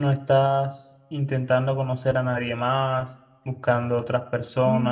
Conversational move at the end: taking over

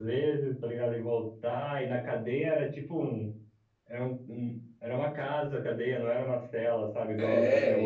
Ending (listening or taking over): taking over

